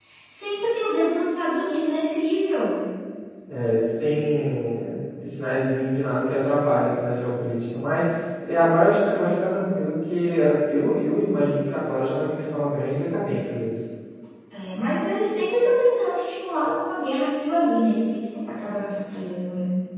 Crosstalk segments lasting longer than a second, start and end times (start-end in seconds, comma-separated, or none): none